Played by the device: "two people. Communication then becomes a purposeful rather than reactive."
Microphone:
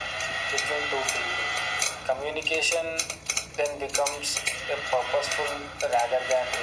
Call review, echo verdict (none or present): present